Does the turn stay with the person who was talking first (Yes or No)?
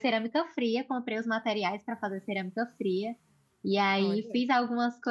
Yes